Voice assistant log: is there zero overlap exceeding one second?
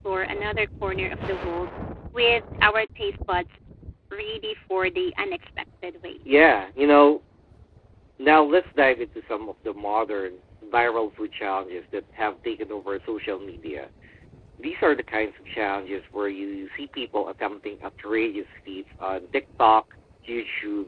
Yes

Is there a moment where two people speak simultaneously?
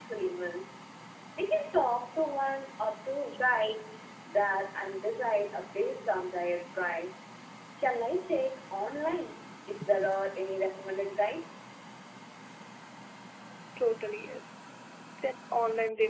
No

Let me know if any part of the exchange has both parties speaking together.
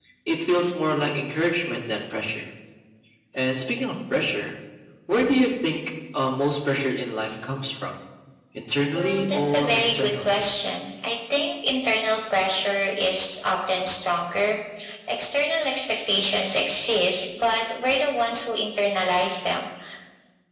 Yes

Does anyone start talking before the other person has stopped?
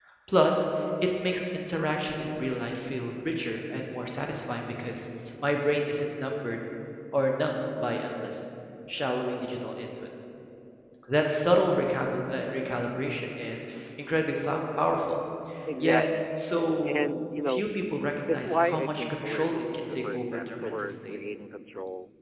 Yes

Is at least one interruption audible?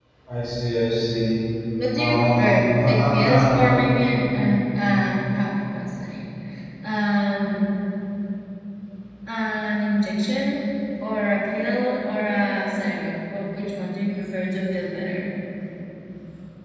Yes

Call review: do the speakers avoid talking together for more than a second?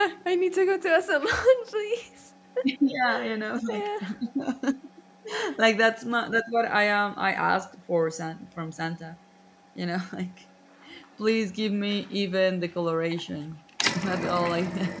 Yes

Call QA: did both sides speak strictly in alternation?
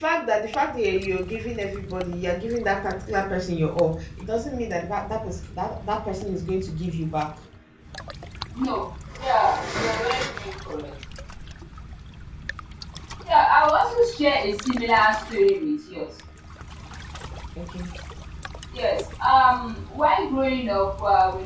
Yes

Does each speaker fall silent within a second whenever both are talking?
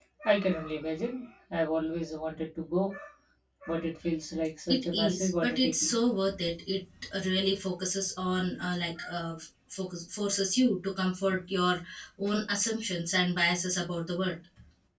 No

